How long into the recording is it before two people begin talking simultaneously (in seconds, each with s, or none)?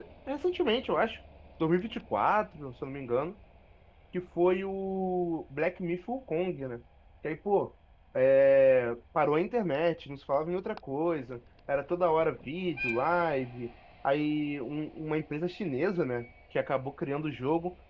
none